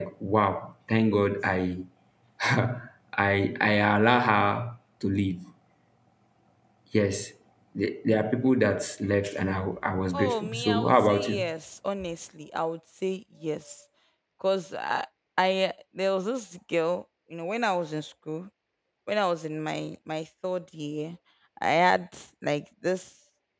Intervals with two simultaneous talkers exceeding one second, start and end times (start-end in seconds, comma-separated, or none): 10.1-11.4